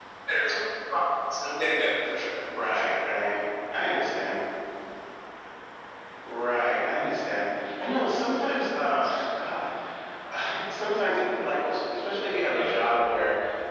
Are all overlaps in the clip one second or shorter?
Yes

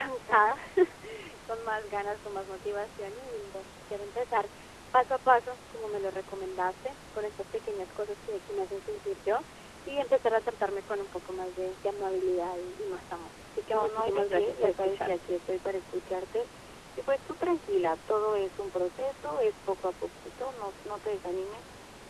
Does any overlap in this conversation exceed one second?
Yes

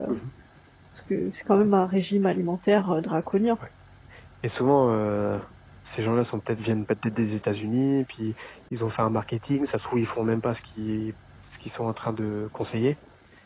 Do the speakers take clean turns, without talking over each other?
Yes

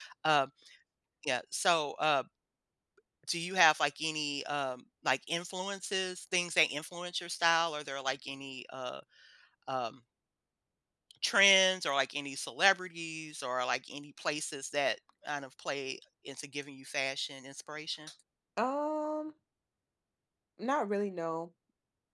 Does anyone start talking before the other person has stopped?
No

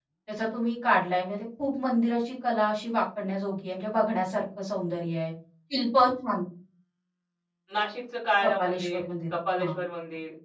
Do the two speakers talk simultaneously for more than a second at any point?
Yes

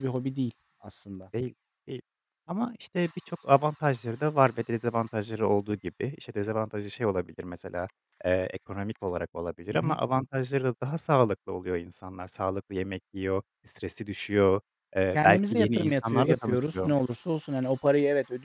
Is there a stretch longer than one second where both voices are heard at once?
Yes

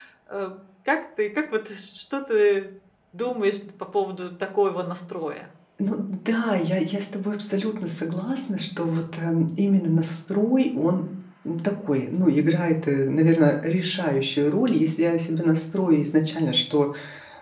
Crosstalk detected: No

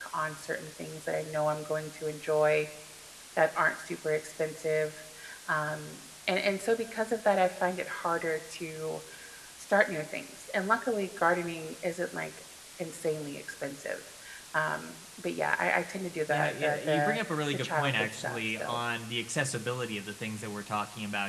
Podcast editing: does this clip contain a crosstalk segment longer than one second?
Yes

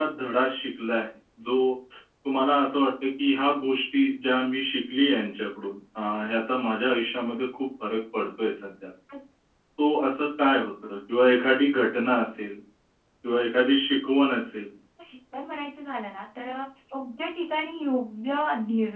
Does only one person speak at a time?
Yes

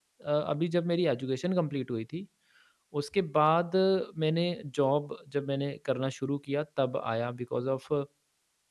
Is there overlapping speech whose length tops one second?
No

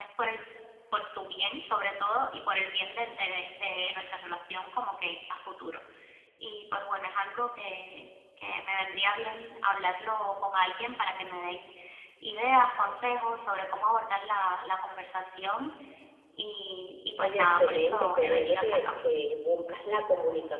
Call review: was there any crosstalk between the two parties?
Yes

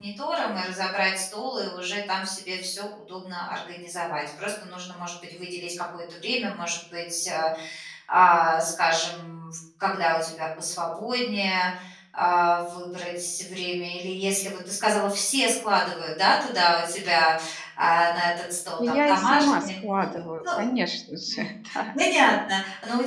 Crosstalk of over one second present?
Yes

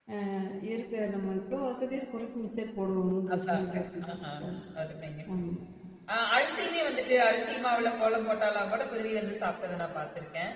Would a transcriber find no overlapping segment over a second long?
Yes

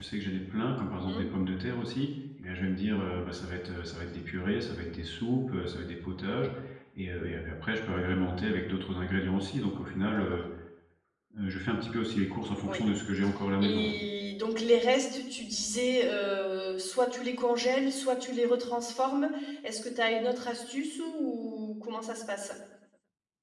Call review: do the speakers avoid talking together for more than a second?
Yes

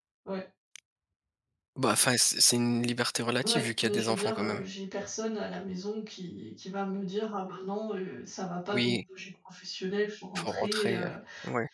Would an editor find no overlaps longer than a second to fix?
No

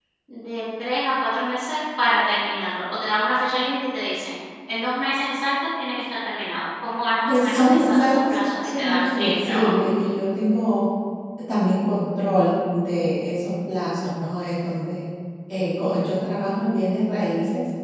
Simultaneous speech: Yes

